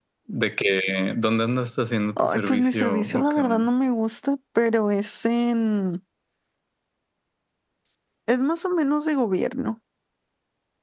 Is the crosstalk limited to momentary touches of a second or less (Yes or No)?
No